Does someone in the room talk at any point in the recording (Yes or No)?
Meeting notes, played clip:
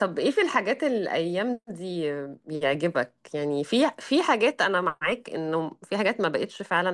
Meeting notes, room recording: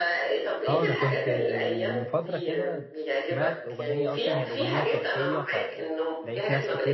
Yes